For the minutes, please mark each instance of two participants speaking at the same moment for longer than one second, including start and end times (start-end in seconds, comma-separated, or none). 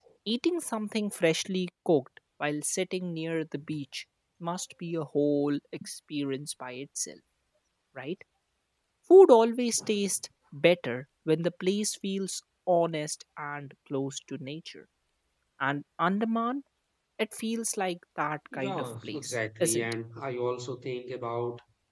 18.5-20.0